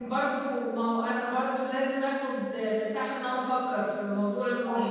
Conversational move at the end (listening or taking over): taking over